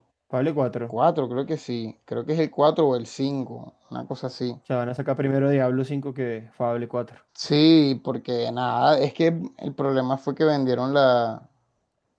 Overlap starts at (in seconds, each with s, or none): none